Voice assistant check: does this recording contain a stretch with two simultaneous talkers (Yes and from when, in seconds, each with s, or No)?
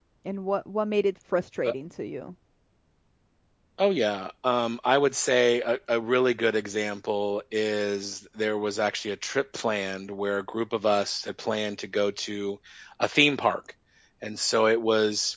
No